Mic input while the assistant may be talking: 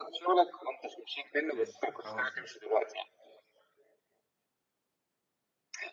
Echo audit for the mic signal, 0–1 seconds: echo only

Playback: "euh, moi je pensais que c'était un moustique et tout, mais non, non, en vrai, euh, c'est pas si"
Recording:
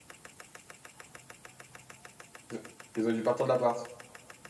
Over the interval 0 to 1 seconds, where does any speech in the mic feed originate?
neither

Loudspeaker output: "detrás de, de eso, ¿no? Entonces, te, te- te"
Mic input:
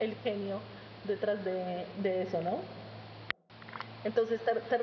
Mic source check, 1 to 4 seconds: echo only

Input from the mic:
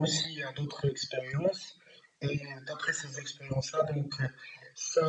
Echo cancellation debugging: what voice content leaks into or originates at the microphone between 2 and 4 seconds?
echo only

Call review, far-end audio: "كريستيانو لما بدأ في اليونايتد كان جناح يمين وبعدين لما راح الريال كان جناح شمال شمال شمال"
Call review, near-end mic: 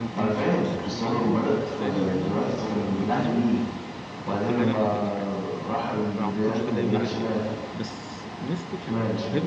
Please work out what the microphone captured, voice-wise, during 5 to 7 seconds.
both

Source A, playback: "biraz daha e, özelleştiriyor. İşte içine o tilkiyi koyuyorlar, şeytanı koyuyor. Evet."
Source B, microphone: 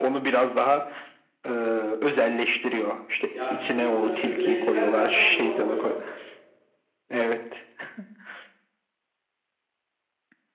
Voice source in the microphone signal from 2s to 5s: both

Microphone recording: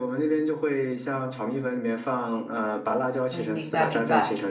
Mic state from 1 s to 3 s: echo only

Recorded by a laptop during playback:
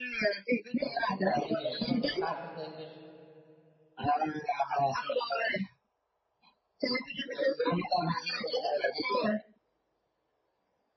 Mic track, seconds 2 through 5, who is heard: both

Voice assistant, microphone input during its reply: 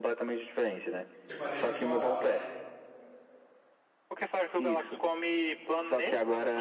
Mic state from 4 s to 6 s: echo only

